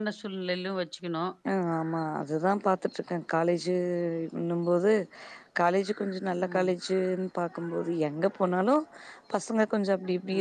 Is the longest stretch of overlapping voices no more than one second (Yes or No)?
Yes